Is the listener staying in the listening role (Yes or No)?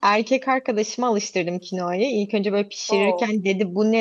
Yes